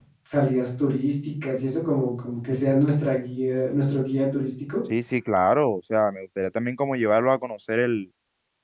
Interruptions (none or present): none